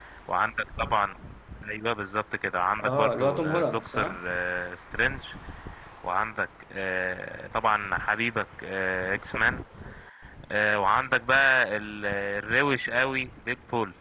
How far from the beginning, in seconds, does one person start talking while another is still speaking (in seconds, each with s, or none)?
2.8 s